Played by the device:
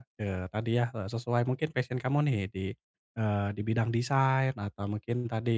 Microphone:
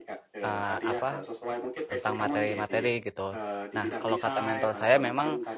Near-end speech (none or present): present